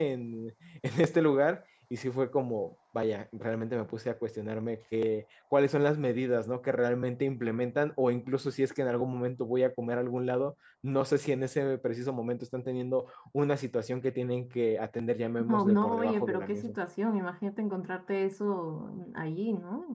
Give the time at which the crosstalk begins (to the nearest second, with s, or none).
15 s